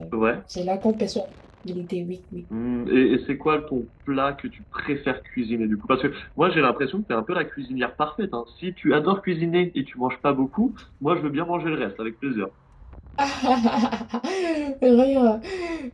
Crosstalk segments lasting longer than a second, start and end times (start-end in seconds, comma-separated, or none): none